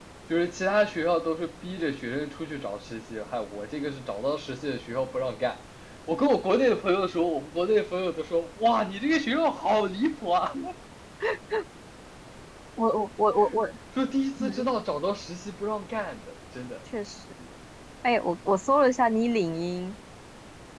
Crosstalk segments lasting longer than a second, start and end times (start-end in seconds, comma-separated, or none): none